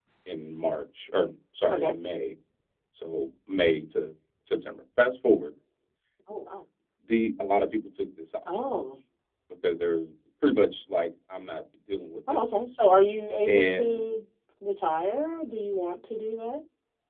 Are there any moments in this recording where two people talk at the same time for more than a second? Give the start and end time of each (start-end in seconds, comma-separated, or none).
none